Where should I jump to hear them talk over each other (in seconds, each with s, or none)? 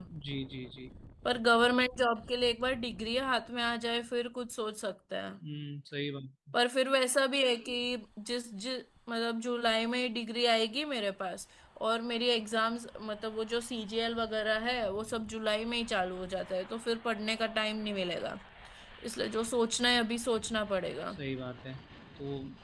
none